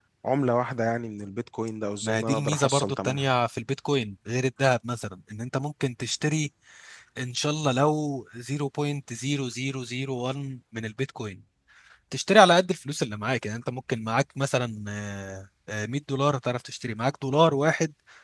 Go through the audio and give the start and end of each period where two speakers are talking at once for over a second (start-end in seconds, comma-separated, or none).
2.0-3.3